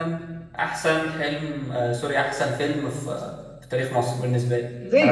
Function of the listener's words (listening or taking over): taking over